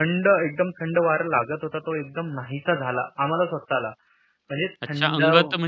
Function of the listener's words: taking over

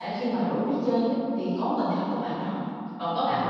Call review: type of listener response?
listening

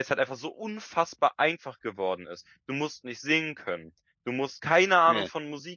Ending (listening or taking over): listening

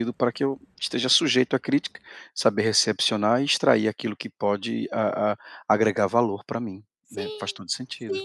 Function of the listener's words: taking over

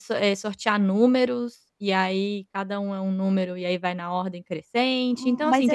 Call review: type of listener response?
taking over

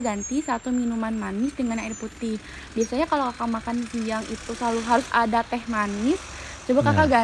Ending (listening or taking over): listening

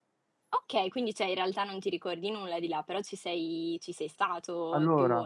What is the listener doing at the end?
taking over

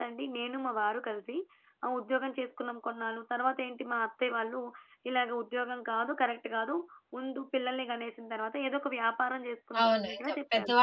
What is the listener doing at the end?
taking over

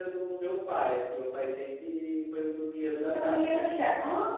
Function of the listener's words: taking over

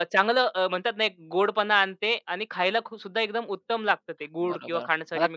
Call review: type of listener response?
taking over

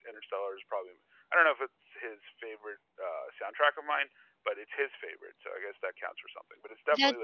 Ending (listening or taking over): listening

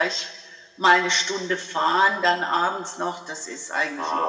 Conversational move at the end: taking over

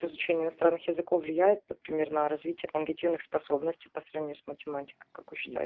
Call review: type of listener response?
taking over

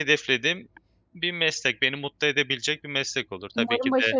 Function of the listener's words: taking over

